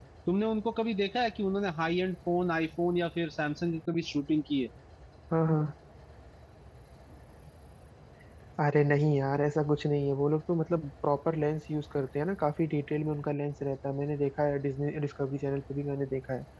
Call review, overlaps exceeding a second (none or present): none